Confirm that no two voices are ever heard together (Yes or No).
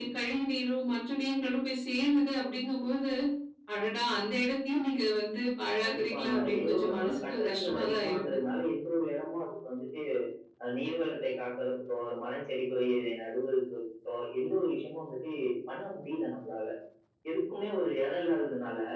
No